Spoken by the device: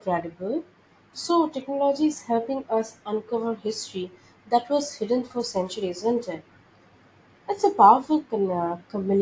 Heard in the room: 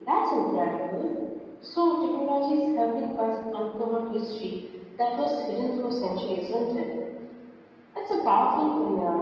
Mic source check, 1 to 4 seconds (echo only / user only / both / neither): echo only